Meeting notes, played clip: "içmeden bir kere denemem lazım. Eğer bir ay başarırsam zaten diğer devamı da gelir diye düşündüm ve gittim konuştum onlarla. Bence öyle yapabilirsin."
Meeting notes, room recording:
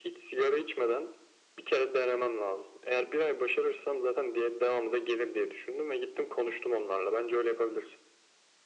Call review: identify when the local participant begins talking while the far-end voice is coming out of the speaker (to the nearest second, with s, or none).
none